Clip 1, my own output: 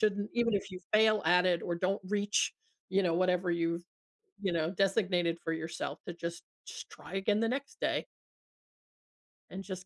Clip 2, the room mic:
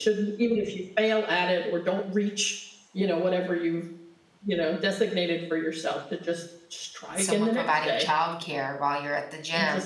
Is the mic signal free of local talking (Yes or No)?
No